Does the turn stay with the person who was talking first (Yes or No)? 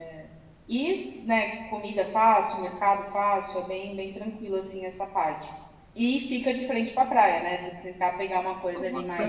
Yes